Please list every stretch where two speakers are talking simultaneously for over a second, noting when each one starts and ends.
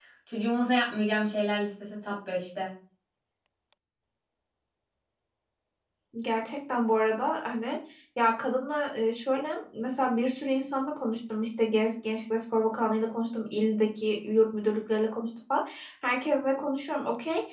none

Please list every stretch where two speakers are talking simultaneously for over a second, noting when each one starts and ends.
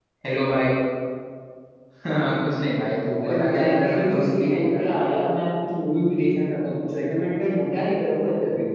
3.2-5.1

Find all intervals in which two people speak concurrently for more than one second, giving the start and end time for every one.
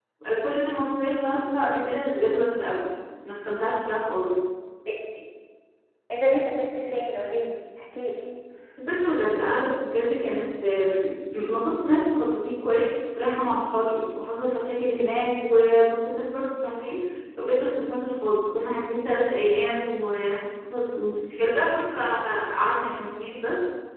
none

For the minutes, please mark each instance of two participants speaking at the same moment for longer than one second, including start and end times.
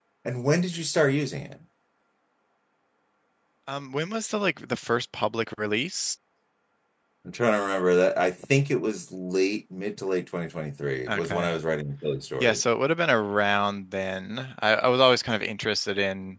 none

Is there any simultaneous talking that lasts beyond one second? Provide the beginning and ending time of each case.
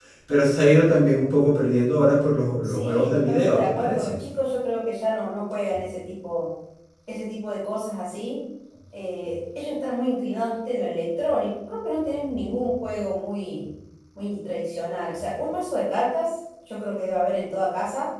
2.6-4.2

